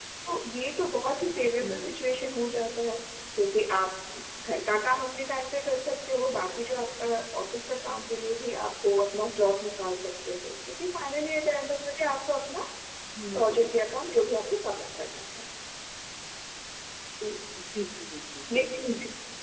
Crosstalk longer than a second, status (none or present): none